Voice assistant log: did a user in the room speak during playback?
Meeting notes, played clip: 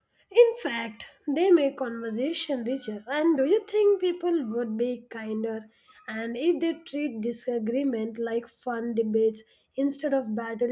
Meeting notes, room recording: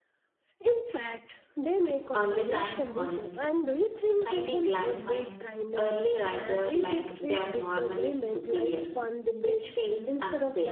Yes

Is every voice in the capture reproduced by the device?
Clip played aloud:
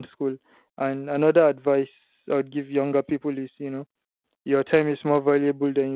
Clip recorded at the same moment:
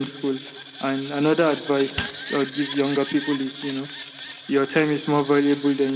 Yes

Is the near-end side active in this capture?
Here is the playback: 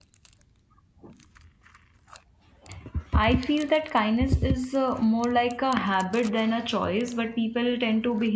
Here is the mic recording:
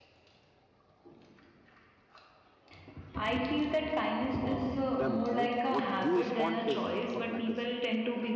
Yes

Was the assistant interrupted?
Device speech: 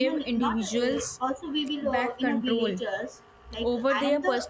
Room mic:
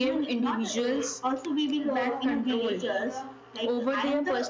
Yes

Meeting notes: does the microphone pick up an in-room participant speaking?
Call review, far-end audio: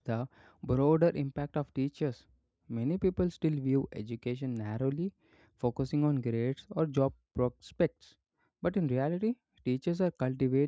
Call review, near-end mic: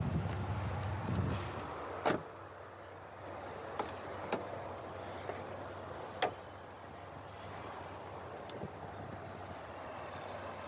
No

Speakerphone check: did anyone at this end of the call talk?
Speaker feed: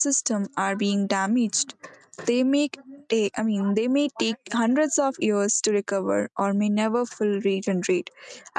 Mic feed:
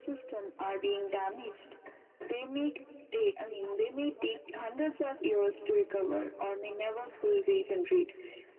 No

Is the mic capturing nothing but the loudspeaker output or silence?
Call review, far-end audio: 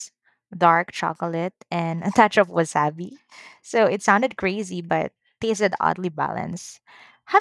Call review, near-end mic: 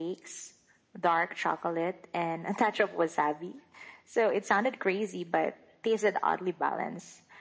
Yes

